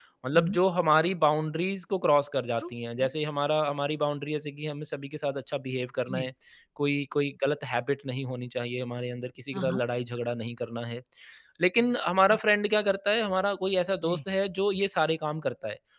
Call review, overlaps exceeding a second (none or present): none